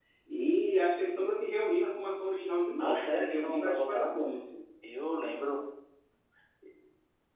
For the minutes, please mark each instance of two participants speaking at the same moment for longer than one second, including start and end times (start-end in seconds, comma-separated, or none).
2.8-4.1